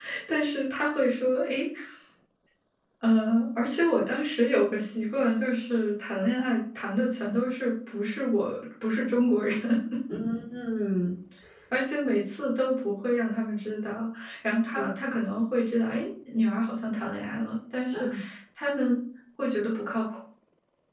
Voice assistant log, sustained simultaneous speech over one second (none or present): none